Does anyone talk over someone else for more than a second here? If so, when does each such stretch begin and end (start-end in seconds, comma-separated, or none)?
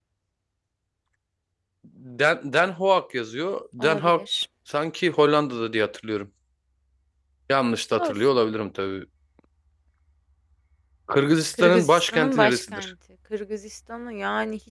11.6-12.9